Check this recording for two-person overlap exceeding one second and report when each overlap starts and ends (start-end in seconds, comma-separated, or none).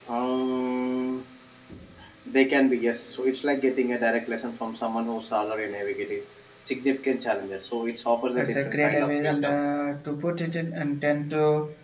8.4-9.6